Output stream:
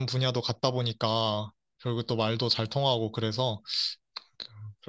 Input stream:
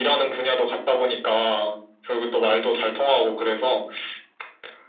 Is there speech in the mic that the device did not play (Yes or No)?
No